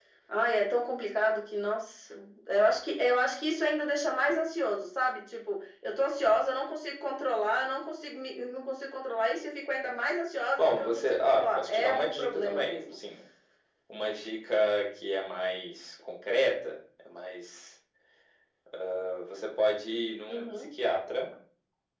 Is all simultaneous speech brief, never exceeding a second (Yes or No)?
No